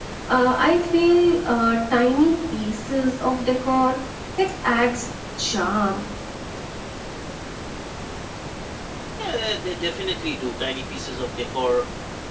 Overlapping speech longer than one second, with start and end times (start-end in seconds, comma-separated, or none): none